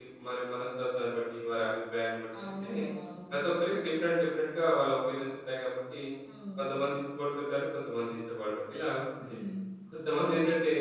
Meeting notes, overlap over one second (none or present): none